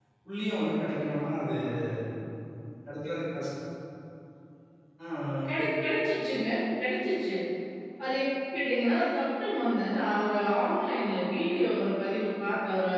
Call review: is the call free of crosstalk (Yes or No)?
Yes